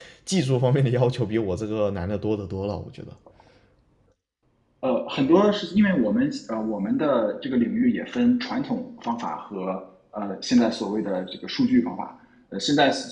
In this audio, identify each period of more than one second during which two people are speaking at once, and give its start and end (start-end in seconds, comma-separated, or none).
none